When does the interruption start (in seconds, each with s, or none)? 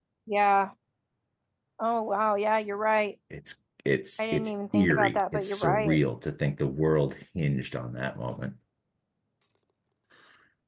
4.2 s